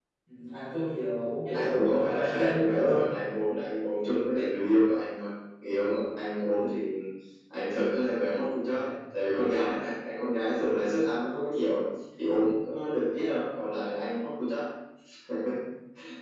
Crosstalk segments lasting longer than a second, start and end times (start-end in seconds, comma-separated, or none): 1.5-3.0